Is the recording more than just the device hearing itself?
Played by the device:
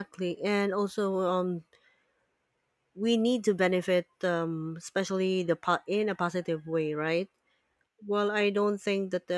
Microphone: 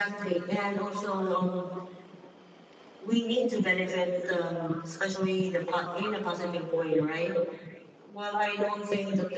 No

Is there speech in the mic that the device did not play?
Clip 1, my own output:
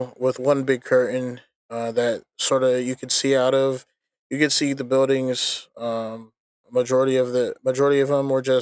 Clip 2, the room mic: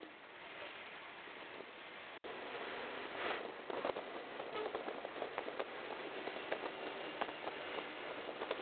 No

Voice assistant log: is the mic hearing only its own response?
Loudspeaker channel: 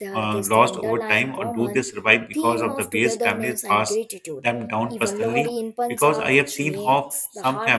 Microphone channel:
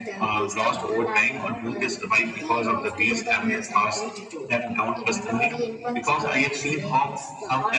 Yes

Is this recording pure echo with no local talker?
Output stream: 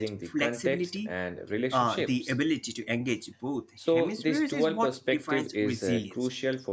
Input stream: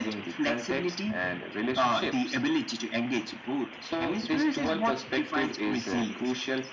Yes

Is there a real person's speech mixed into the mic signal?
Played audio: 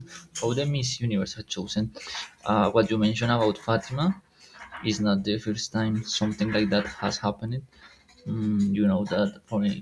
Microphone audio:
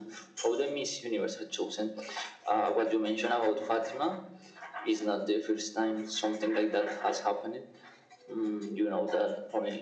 No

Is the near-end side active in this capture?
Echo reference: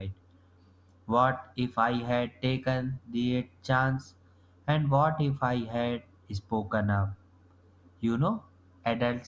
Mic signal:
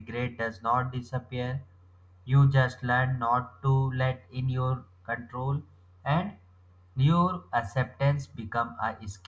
Yes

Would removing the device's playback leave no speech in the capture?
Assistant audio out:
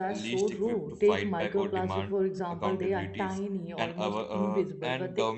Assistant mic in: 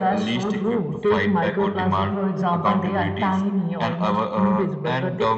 Yes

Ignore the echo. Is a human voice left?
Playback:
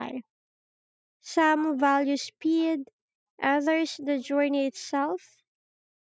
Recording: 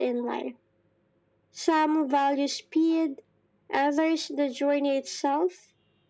No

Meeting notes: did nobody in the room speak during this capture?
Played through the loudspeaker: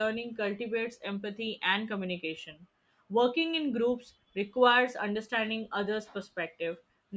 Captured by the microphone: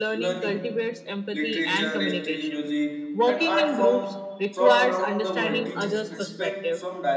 No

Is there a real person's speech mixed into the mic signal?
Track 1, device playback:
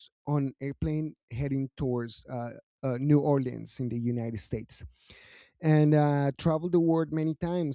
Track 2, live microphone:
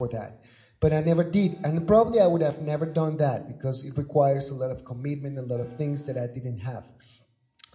Yes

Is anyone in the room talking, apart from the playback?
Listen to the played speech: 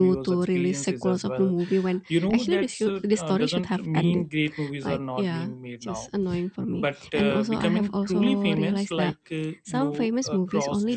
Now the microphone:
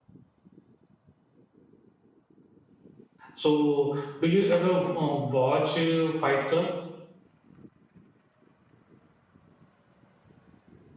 Yes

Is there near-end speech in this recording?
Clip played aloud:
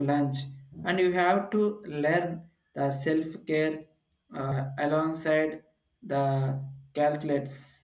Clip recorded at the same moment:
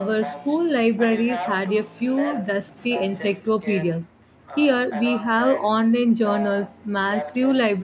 Yes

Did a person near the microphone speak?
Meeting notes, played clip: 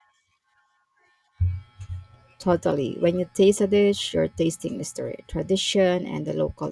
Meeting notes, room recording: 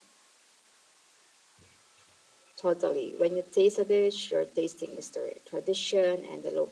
No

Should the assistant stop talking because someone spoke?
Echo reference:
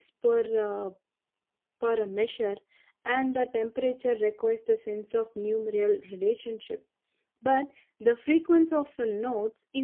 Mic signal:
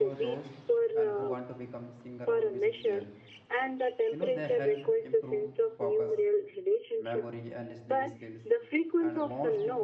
Yes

